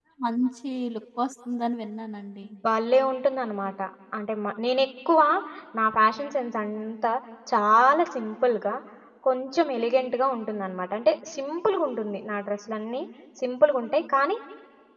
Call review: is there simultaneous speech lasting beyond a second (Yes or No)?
No